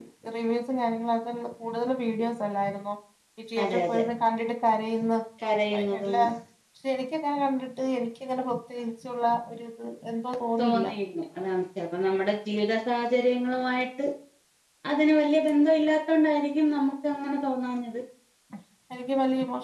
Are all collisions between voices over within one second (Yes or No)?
Yes